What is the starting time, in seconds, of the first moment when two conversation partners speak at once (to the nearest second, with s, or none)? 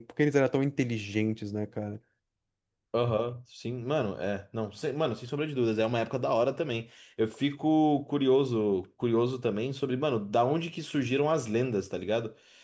none